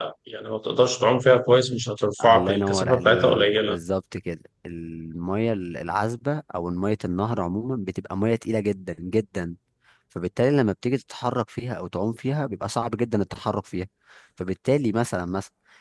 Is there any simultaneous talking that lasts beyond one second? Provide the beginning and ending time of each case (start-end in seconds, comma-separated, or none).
2.2-3.8